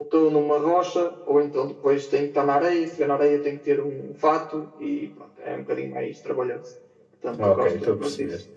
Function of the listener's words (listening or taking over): taking over